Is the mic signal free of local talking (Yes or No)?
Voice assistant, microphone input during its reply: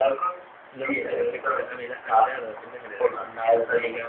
No